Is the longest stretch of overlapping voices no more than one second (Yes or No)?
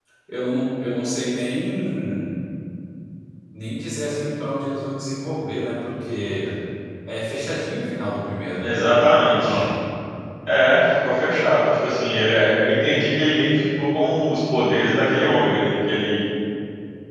Yes